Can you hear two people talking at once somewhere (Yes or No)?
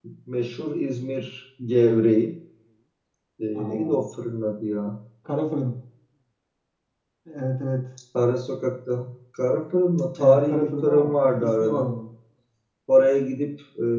Yes